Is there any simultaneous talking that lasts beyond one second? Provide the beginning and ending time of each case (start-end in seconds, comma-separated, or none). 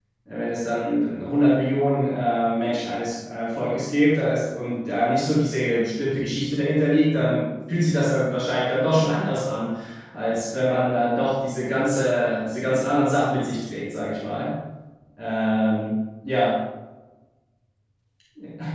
none